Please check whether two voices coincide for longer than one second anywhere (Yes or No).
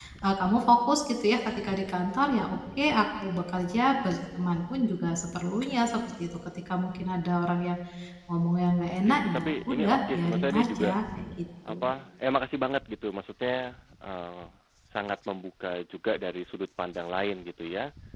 Yes